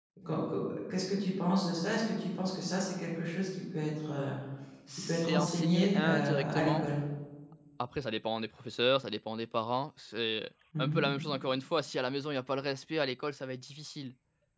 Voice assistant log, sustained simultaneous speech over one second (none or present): present